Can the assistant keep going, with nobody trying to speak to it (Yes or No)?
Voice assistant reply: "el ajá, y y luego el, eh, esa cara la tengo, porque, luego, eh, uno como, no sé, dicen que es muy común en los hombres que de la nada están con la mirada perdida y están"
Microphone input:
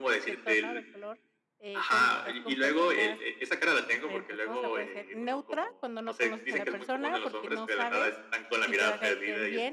No